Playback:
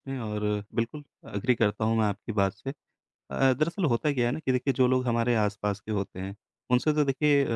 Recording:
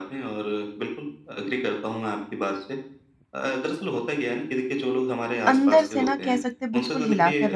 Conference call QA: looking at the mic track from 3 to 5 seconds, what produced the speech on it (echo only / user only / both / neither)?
echo only